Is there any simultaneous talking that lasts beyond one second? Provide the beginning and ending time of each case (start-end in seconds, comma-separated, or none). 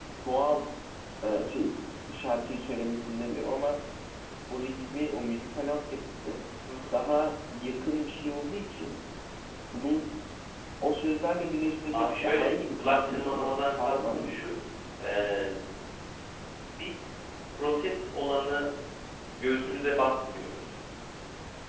11.9-14.3